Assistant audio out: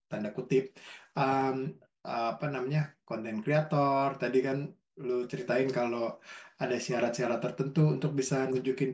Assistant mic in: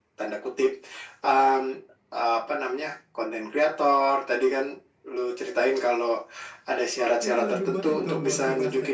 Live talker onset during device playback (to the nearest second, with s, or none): 7 s